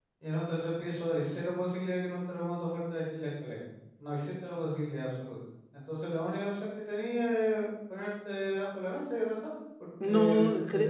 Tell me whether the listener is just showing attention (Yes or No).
No